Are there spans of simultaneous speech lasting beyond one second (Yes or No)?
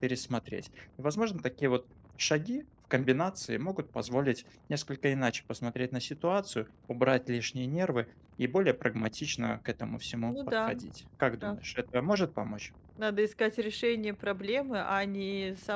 No